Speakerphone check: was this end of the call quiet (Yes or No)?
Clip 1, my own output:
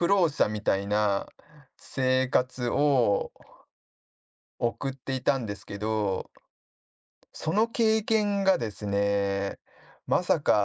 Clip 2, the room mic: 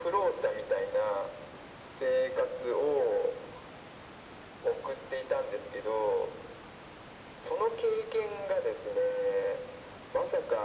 Yes